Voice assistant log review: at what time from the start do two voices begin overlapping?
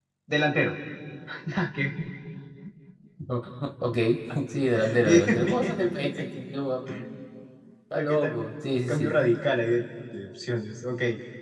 5.0 s

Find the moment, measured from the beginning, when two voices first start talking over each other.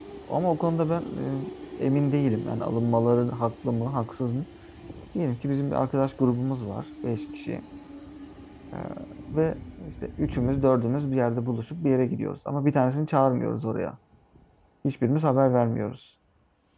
none

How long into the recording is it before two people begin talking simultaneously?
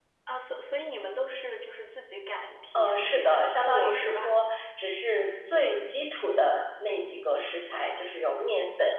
2.7 s

